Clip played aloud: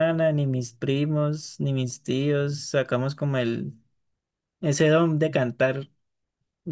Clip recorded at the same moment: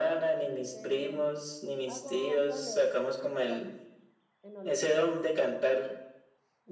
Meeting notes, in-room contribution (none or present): present